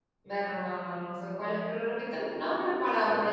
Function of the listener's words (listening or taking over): taking over